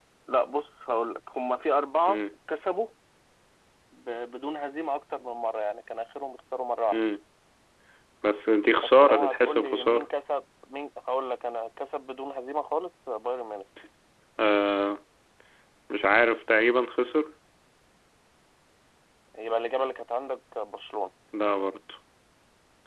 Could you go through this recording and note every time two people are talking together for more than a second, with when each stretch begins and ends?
8.8-10.1

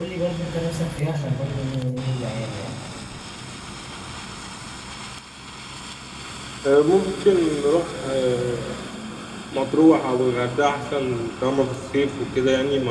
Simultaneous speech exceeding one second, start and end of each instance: none

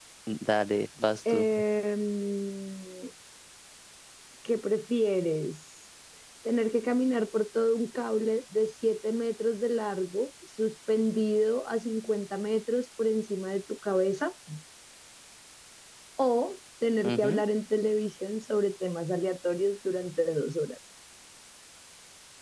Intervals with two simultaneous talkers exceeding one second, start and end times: none

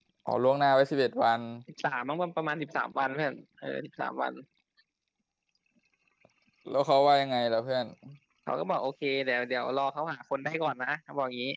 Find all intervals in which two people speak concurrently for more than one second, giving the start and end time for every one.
none

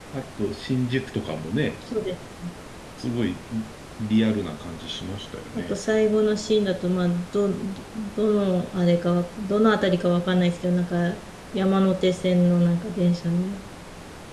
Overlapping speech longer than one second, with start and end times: none

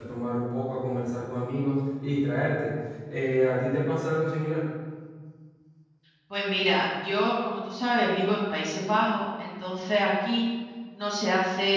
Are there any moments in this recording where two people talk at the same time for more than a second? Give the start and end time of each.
none

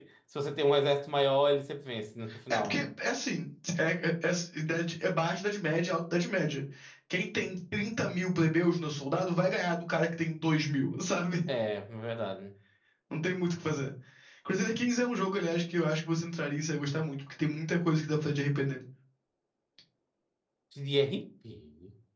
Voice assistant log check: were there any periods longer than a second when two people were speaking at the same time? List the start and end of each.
none

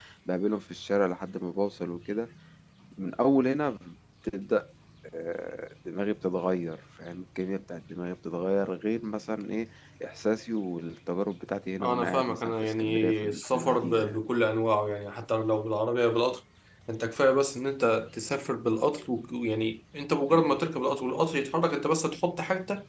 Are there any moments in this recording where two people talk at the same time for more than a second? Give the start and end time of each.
11.8-14.2

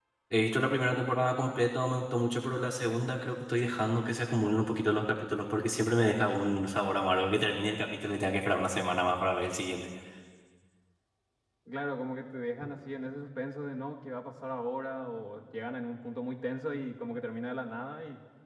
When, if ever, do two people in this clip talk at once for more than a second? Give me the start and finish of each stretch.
none

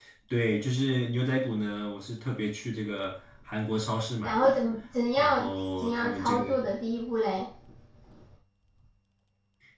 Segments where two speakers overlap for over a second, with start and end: 5.2-6.4

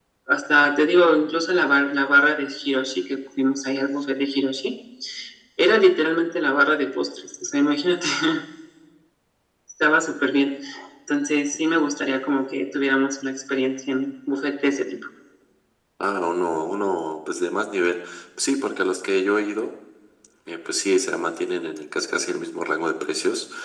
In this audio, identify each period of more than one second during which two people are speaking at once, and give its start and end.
none

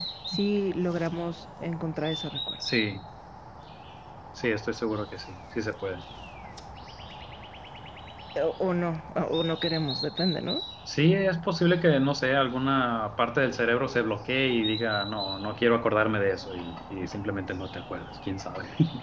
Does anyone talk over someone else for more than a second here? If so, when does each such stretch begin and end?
none

